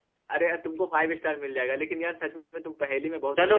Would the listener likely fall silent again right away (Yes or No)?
No